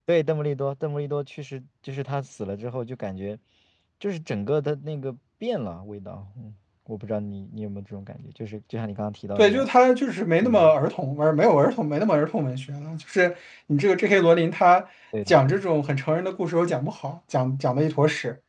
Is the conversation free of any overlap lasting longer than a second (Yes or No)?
Yes